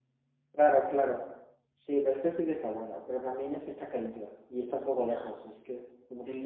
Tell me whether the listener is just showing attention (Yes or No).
No